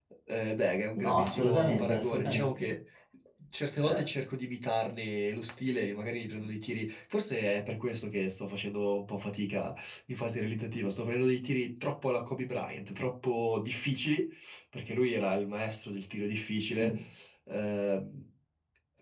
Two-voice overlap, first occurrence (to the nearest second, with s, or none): 1 s